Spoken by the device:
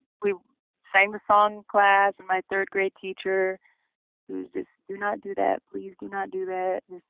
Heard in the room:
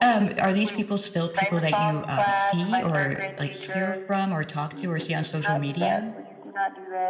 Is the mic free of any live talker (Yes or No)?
No